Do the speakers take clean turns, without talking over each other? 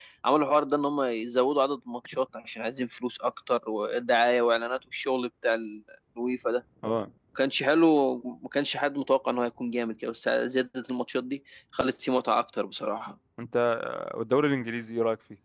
Yes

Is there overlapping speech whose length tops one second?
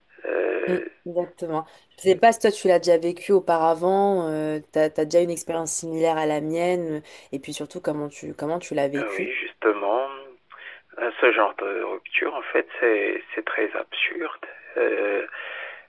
No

